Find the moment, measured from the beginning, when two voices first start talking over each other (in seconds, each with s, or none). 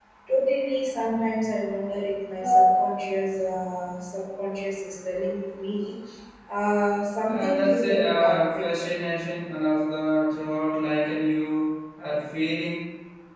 7.3 s